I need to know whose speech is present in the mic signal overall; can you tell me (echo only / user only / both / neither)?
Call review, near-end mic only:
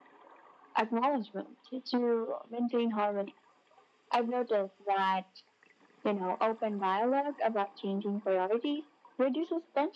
echo only